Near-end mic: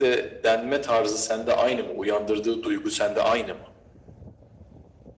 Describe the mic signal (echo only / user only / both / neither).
echo only